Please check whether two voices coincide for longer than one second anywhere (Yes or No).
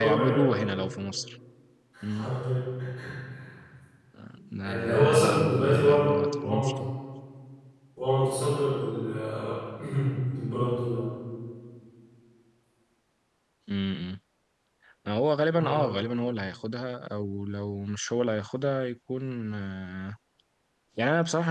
Yes